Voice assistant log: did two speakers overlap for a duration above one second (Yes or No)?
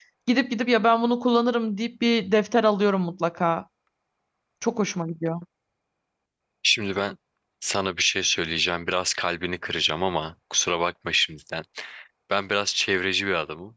No